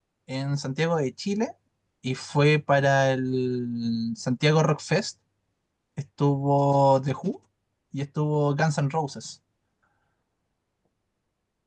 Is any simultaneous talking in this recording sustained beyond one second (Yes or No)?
No